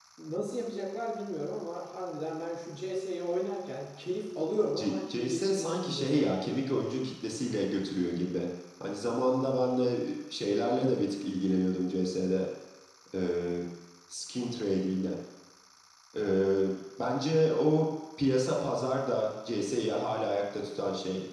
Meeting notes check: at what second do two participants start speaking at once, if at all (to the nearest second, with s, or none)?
5 s